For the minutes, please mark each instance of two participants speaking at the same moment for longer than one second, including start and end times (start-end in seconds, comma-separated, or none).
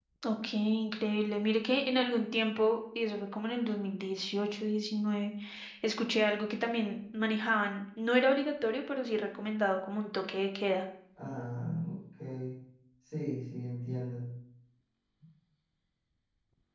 none